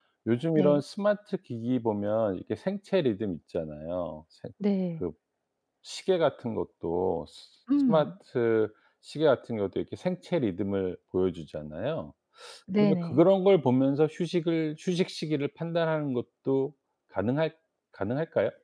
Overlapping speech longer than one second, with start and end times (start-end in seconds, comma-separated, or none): none